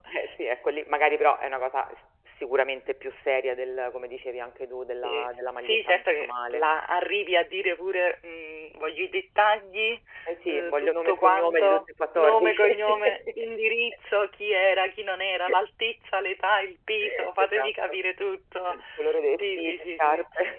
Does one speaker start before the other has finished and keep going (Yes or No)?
Yes